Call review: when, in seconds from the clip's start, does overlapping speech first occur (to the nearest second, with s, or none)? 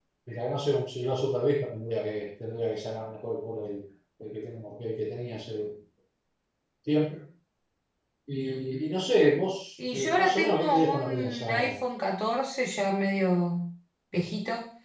10 s